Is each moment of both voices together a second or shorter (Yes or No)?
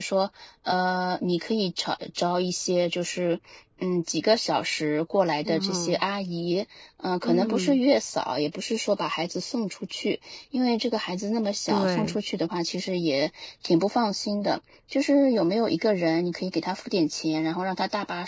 Yes